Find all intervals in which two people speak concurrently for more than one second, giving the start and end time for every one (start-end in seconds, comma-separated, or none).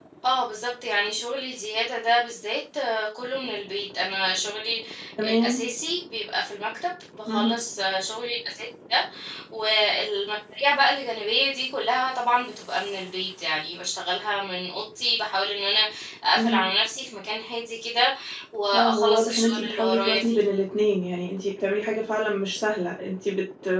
18.7-20.4